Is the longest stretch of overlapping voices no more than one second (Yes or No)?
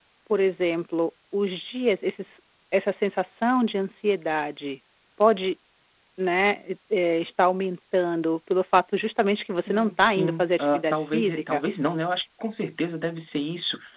No